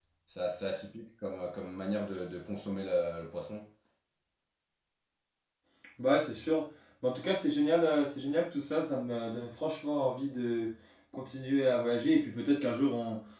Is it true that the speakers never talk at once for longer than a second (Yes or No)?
Yes